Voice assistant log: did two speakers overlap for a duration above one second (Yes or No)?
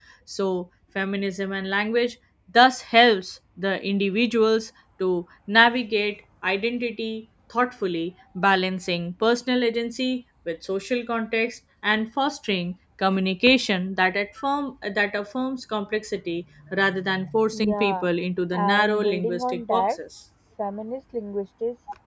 Yes